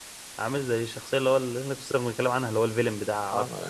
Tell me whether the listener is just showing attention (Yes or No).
No